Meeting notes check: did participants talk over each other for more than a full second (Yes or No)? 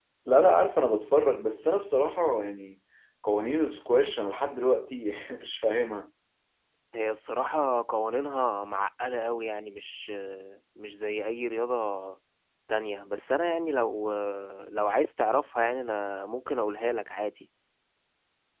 No